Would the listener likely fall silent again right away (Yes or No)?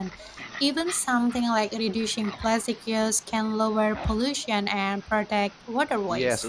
No